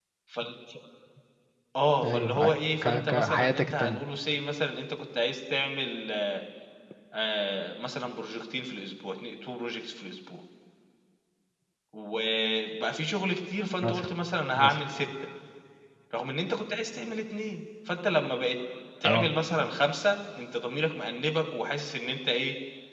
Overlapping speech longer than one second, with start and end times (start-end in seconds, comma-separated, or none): 2.0-4.0